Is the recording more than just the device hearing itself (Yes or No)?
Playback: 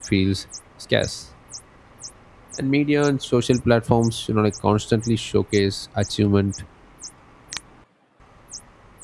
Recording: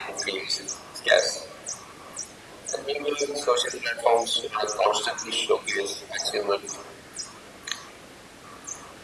No